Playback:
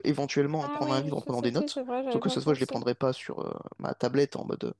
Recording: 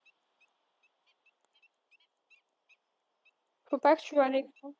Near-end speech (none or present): present